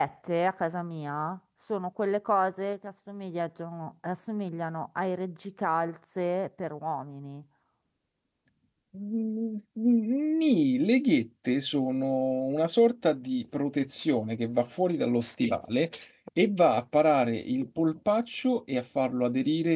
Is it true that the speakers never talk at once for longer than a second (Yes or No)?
Yes